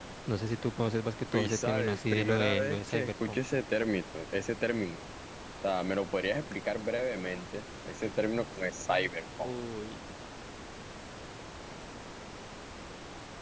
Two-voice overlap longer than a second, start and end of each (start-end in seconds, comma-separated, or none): 1.3-3.4